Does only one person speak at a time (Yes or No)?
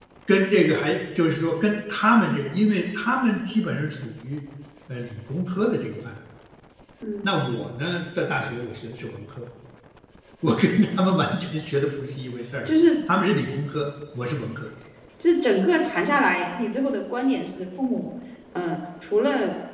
Yes